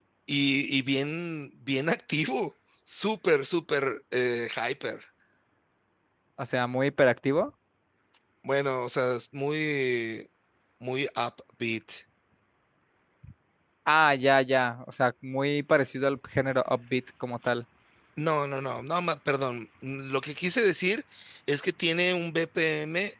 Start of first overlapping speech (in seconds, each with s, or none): none